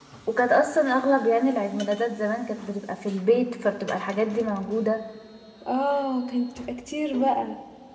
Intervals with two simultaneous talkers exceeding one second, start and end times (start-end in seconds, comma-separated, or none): none